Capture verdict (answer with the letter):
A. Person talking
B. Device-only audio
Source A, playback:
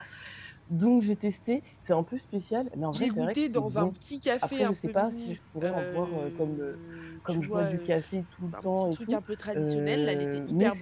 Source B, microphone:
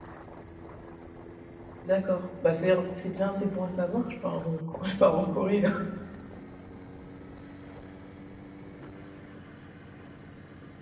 A